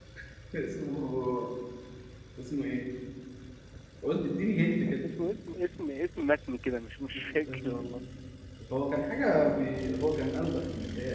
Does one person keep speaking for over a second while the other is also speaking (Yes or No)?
No